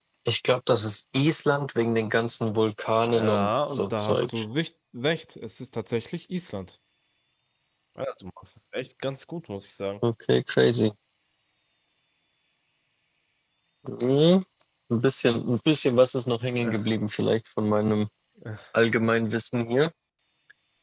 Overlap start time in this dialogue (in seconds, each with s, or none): 3.1 s